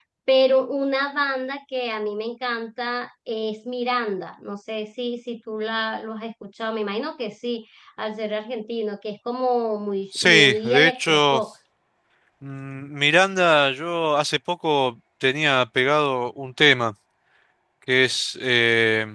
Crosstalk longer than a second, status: present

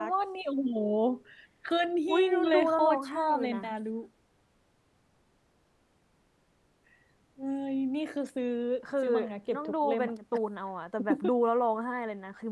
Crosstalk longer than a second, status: present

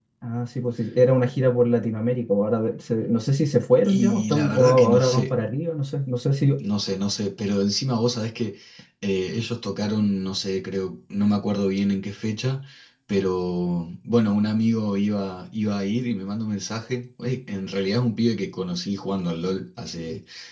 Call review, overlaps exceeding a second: present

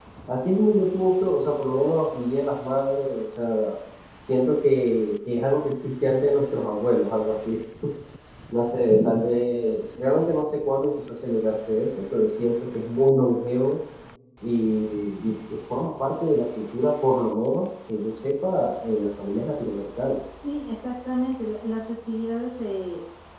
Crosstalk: none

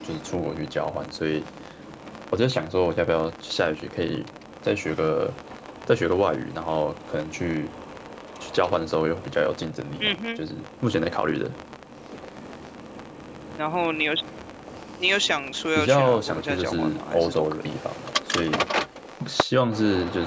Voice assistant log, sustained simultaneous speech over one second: present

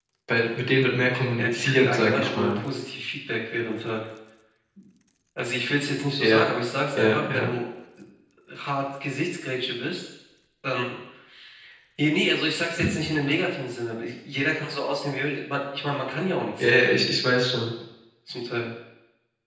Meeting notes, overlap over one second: present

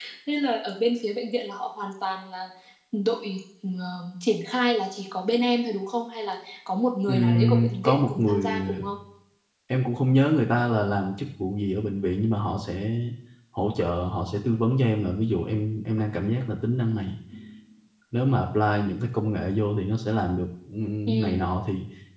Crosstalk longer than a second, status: present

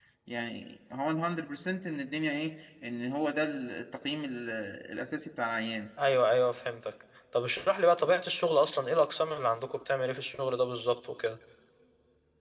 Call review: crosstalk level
none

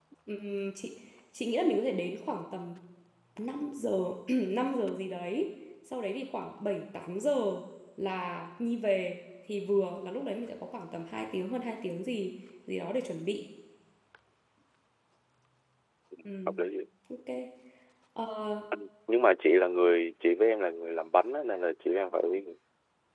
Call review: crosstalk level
none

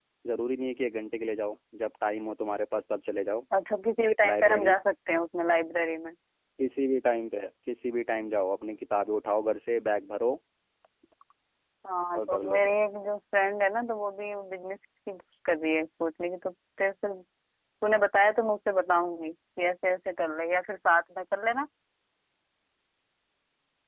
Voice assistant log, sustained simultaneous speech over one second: none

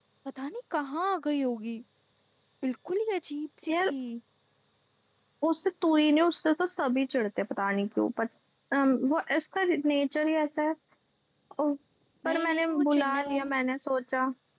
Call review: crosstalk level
present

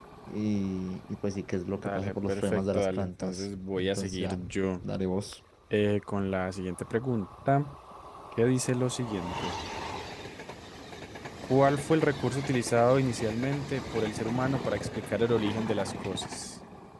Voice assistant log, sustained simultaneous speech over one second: present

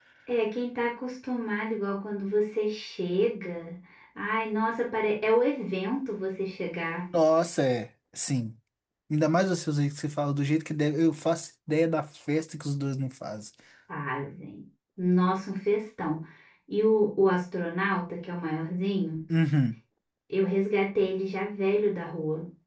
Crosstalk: none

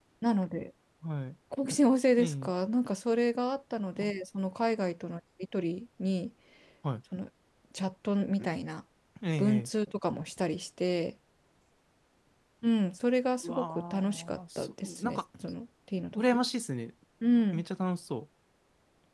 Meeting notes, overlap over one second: present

